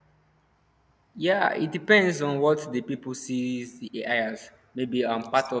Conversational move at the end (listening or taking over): listening